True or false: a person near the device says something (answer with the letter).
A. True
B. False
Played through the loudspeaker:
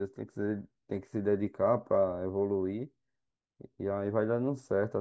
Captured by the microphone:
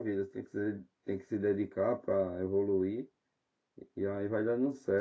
B